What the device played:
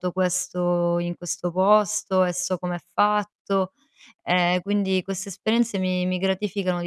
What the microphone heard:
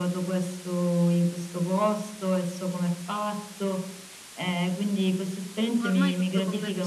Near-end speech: present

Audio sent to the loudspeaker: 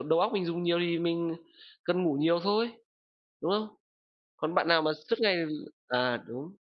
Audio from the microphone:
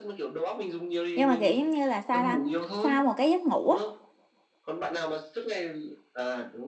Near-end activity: present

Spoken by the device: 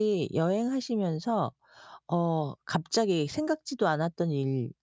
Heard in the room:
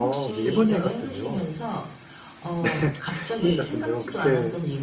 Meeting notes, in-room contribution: present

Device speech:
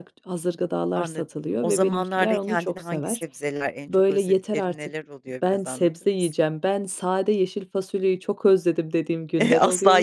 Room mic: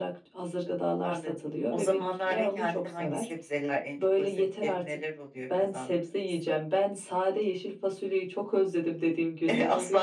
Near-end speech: none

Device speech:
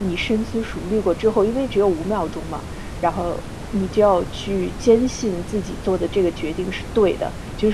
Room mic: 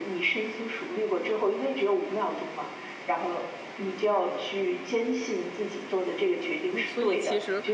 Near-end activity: present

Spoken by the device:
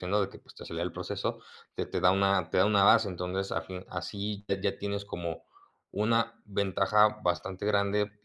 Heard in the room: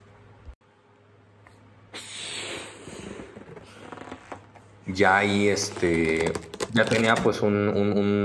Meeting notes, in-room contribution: present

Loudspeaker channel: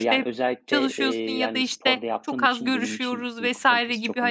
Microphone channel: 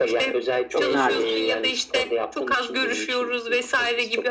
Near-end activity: present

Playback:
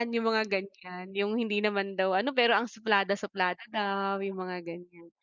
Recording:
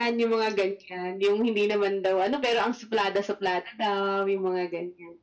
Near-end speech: none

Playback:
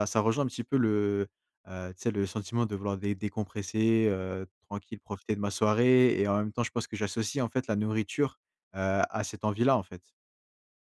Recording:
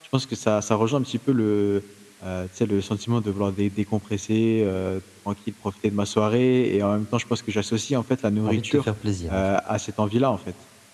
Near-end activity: present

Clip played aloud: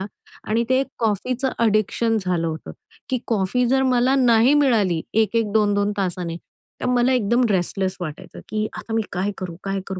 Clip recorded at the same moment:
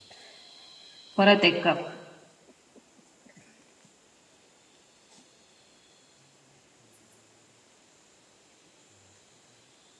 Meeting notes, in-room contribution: present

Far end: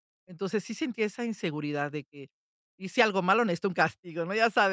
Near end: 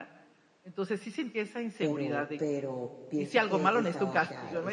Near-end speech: present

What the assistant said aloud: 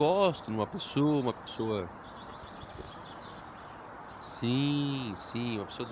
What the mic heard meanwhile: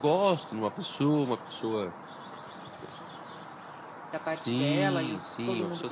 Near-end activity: present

